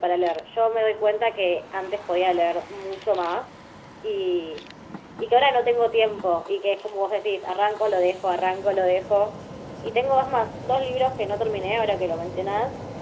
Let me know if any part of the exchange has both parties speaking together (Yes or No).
No